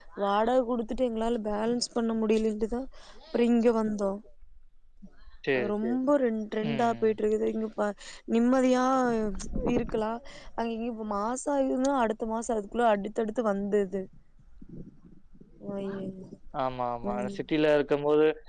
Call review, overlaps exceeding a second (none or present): none